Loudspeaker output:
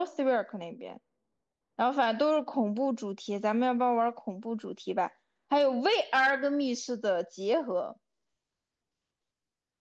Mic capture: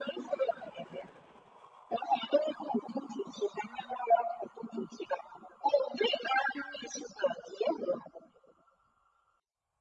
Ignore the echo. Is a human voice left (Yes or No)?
No